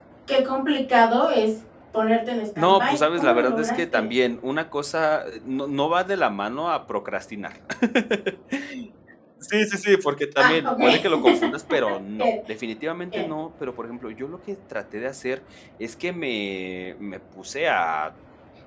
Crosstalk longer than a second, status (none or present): present